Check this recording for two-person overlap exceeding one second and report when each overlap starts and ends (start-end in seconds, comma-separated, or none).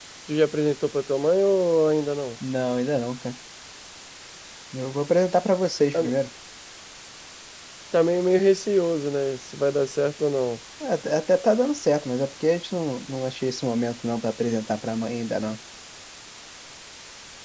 none